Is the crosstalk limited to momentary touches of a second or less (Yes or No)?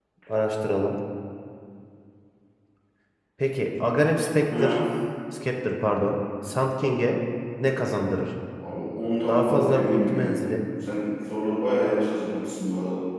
No